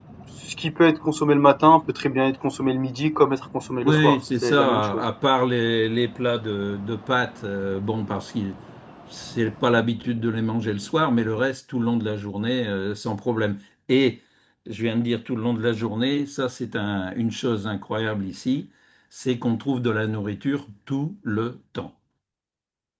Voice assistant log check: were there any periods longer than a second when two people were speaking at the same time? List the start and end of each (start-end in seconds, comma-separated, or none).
3.8-5.1